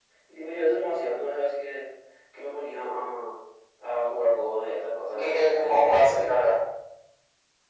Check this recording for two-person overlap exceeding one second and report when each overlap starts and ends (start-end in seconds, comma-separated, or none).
5.1-6.5